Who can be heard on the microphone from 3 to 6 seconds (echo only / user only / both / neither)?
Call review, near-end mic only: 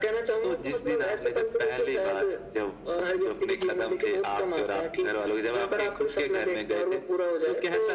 echo only